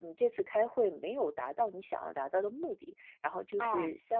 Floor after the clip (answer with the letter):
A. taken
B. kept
B